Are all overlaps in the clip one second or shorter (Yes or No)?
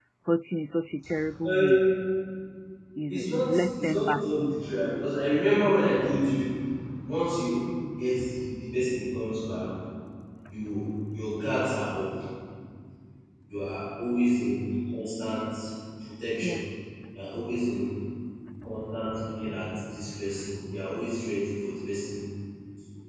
No